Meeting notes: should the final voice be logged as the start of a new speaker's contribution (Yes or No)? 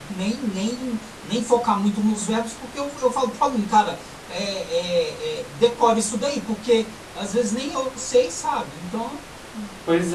Yes